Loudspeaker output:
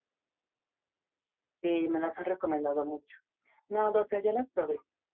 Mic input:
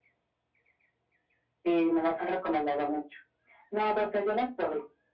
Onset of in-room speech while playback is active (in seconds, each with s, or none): none